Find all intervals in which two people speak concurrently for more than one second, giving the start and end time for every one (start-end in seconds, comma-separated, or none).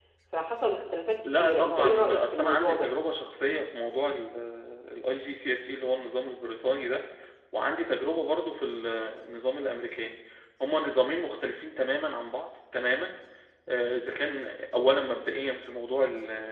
1.2-2.9